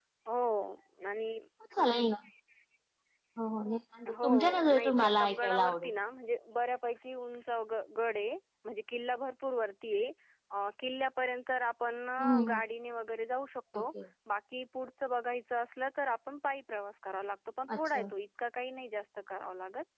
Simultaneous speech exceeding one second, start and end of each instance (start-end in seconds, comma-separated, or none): 4.2-5.9